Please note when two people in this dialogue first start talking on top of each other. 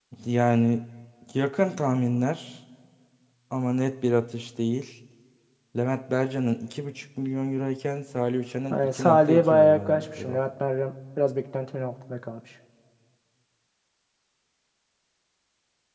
8.7 s

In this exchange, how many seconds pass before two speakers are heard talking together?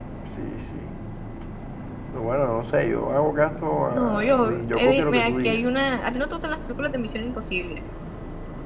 3.9 s

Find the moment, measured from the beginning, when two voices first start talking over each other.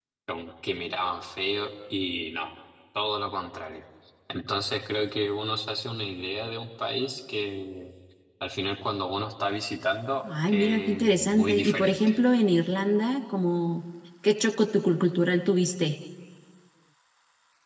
10.2 s

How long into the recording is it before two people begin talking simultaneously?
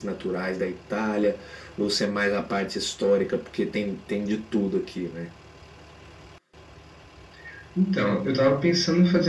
none

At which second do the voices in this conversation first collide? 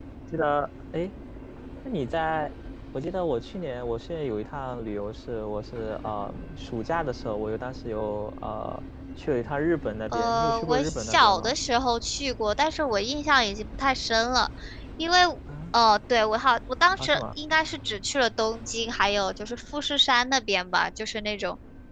10.1 s

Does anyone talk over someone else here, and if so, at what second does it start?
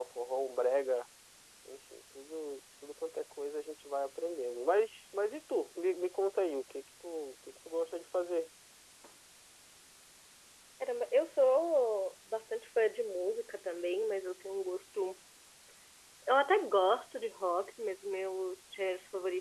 none

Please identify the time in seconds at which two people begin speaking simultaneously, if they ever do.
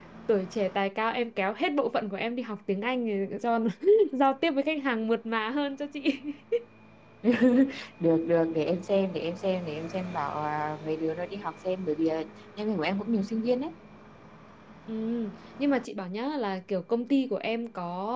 none

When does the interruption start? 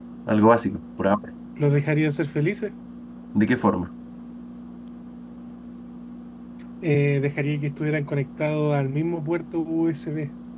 none

